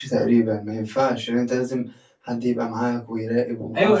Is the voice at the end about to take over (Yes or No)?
Yes